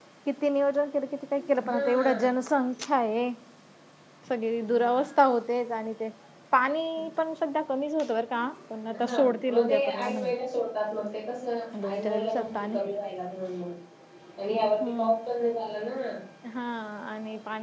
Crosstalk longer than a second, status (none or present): present